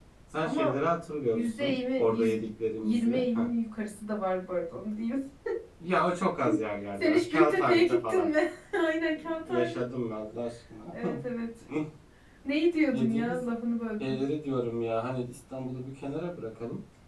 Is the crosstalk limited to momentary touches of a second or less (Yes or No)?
No